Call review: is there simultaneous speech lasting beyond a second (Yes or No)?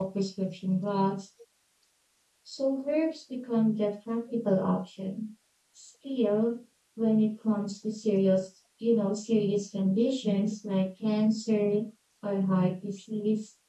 No